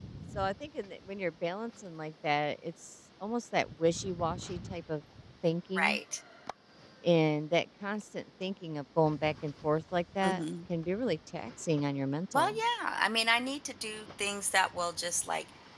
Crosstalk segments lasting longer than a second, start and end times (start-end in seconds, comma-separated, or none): none